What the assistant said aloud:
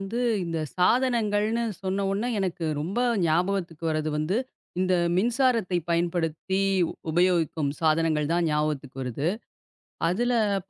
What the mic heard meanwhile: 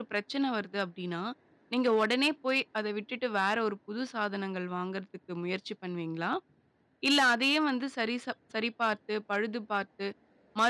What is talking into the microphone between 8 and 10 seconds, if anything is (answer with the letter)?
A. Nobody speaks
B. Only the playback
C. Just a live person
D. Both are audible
C